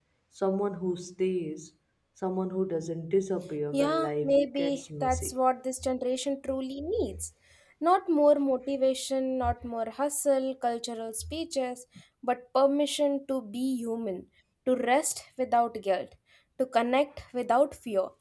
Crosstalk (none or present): present